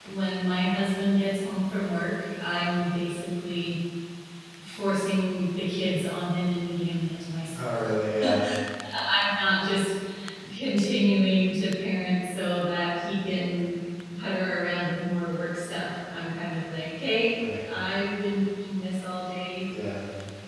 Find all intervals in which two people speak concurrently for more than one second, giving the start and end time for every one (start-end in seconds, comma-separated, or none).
none